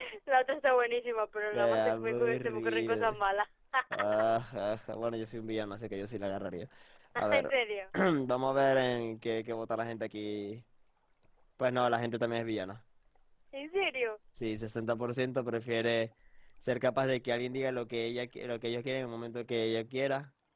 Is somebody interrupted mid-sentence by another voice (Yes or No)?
Yes